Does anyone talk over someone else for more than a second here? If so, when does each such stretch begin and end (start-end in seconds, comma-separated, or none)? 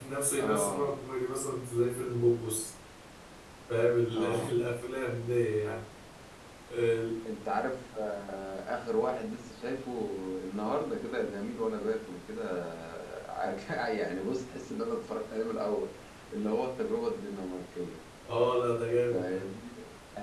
none